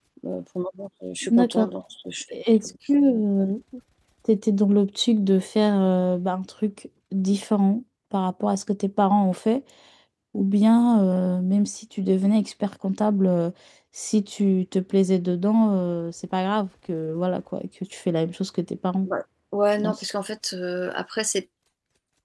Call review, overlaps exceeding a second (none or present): none